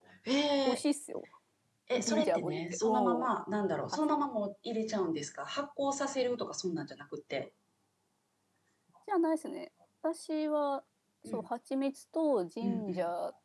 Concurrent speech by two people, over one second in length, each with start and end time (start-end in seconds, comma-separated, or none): 2.0-3.3